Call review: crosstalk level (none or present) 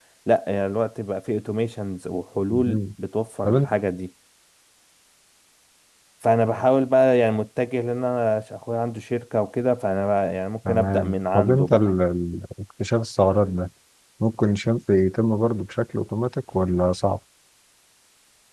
present